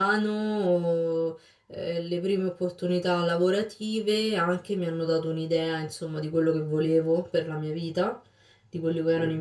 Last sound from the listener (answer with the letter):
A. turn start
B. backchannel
B